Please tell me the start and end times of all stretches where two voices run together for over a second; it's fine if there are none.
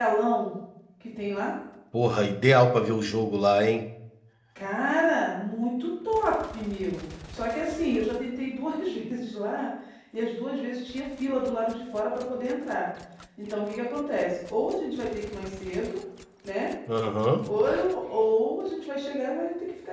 none

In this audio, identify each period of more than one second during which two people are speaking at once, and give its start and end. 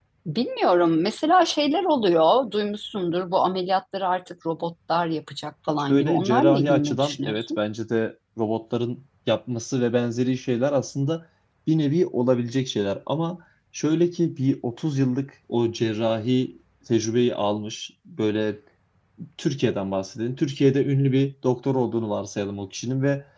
5.9-7.6

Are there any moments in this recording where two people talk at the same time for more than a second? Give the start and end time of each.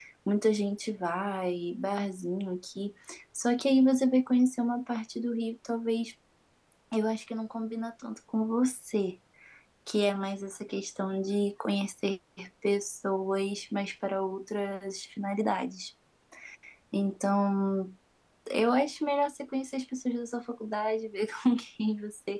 none

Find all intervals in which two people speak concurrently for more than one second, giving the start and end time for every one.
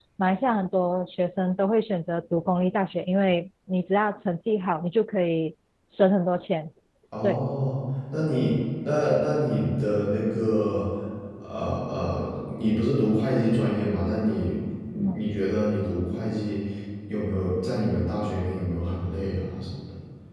none

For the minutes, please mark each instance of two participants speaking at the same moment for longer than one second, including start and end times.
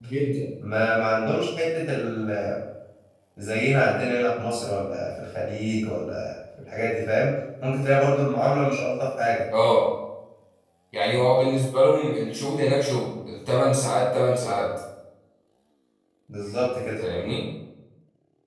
none

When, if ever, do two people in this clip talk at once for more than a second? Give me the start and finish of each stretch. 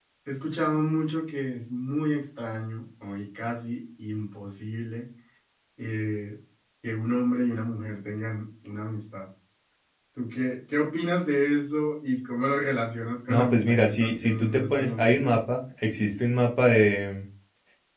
13.3-15.2

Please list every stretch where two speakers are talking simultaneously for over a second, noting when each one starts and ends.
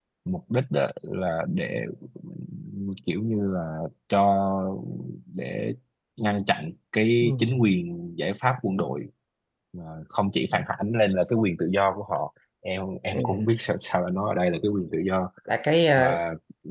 none

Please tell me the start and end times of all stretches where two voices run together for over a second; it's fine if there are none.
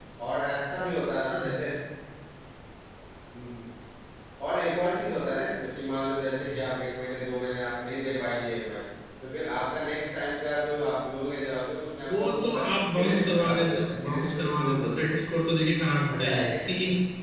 12.2-15.4

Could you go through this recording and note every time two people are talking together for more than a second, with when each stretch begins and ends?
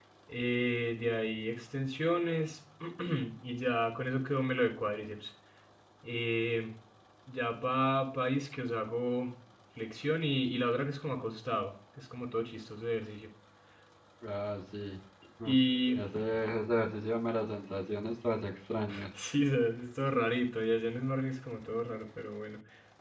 none

